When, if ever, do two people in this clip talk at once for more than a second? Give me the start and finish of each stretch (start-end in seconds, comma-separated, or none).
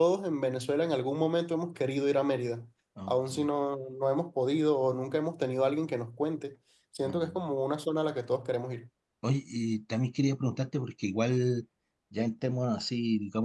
none